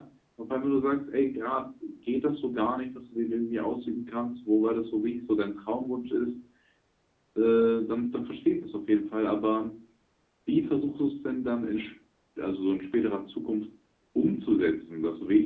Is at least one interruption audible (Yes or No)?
No